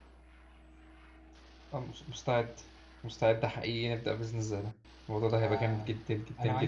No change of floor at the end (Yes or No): No